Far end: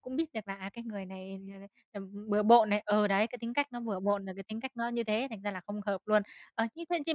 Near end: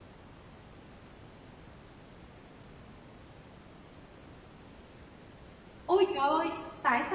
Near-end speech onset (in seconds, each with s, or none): 5.8 s